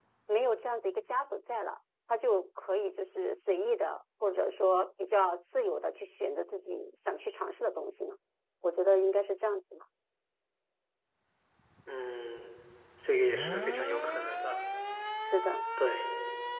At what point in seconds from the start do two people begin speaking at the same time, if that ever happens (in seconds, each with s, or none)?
none